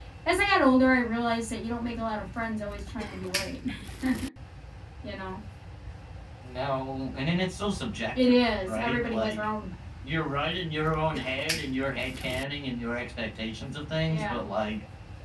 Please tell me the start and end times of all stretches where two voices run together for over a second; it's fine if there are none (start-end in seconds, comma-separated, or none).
8.2-9.5